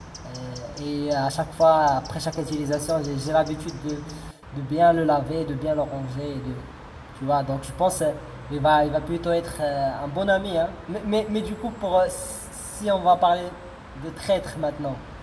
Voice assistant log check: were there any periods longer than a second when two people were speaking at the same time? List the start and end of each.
none

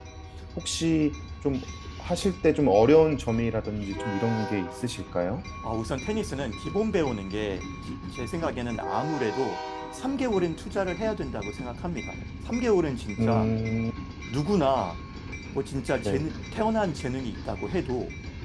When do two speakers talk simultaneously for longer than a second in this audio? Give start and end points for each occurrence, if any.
none

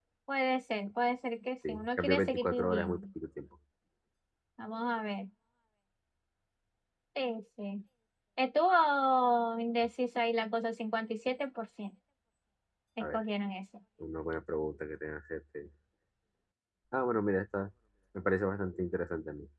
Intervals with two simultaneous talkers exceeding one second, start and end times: 1.7-3.0

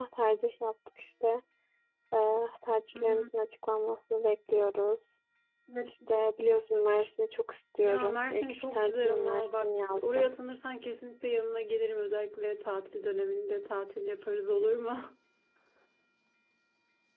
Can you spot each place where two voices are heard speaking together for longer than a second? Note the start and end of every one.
7.8-10.3

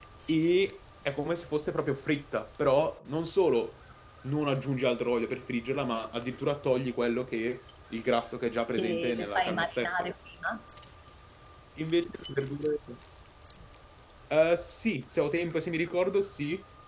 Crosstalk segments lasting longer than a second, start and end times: 8.8-10.1

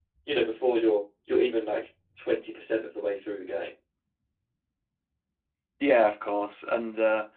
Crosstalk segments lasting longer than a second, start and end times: none

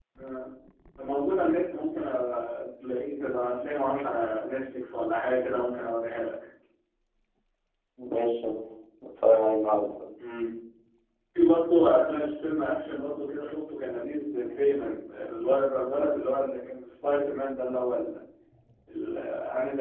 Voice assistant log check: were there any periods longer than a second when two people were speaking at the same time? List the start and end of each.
none

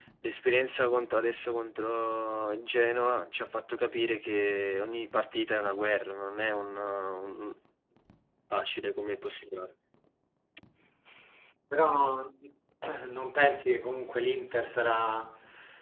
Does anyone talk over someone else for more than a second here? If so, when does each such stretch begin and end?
none

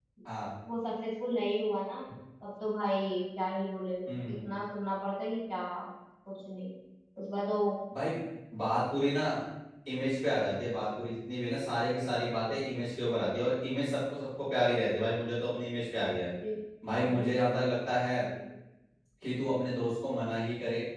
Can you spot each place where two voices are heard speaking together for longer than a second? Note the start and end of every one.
none

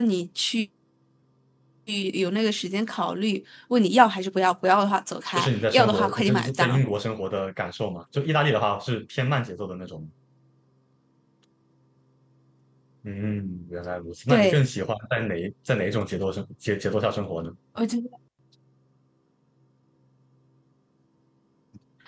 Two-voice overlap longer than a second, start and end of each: 5.4-6.8

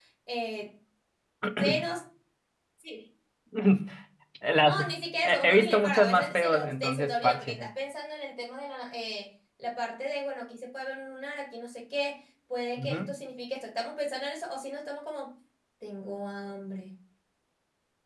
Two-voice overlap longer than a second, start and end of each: 5.2-7.7

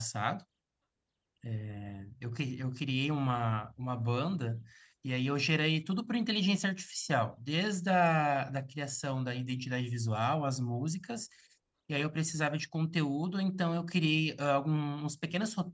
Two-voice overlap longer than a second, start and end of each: none

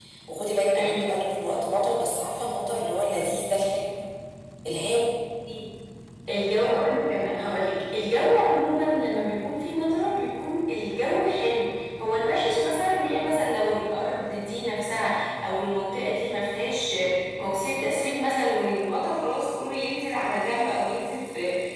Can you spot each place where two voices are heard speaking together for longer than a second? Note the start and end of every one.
none

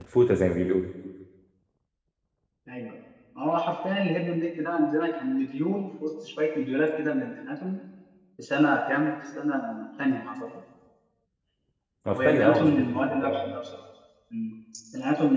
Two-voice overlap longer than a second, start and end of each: 12.1-13.4

